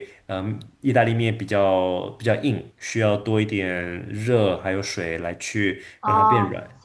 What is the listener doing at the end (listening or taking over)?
taking over